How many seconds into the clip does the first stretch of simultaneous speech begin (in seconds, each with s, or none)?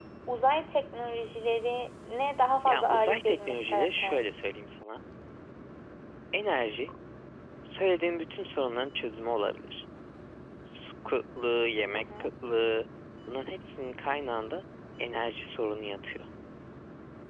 2.7 s